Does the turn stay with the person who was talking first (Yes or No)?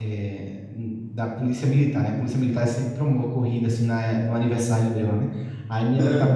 Yes